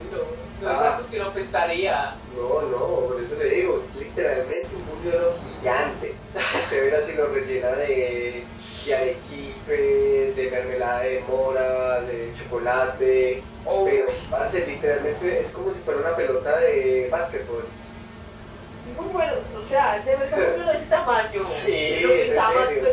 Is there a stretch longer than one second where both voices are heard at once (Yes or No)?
Yes